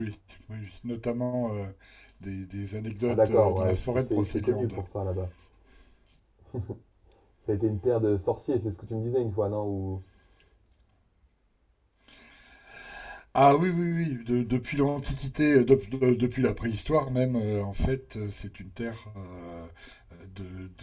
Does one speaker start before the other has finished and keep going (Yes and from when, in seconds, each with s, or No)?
Yes, from 3.1 s